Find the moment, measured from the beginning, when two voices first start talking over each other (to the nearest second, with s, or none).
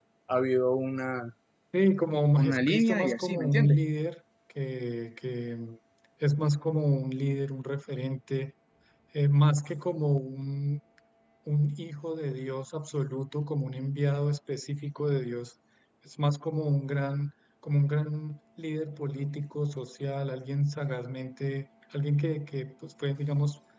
2 s